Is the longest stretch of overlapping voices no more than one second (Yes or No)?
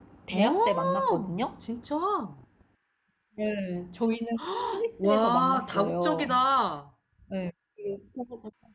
No